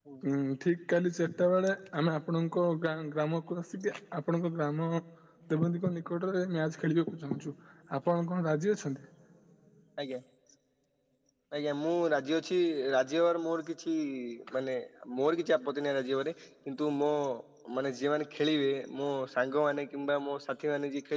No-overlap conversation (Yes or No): Yes